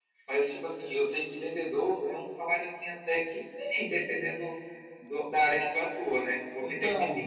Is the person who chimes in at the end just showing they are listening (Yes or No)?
Yes